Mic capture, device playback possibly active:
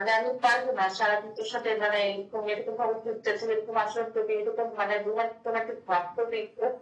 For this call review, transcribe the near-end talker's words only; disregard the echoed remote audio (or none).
none